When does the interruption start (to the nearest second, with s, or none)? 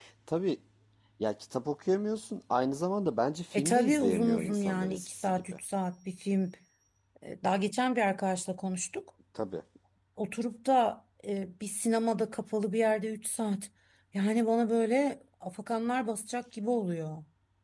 4 s